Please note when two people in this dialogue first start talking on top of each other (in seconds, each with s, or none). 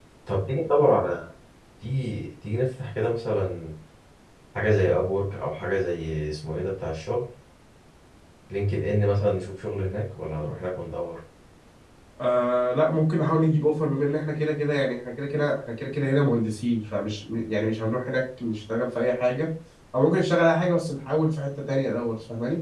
none